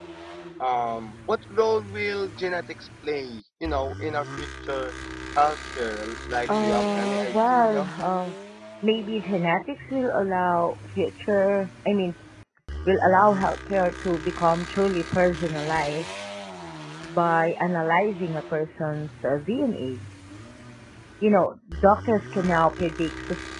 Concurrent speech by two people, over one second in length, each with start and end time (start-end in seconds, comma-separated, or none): 6.6-7.9